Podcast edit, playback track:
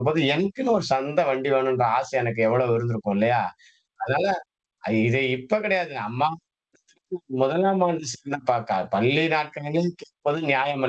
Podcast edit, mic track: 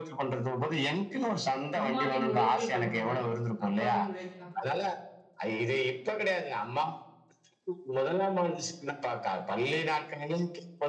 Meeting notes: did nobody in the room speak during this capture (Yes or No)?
No